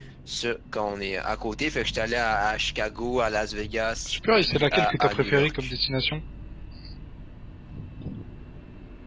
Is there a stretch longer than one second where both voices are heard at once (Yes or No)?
Yes